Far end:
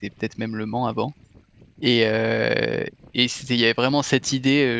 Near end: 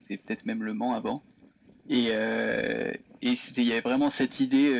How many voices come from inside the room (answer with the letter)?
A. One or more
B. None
B